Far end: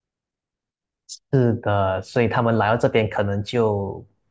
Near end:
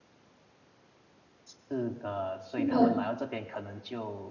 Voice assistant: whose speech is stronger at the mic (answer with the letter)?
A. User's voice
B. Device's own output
A